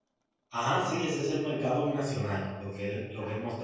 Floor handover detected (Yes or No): No